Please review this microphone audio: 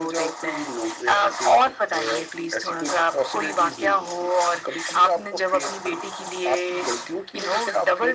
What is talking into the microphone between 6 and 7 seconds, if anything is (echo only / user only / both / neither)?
echo only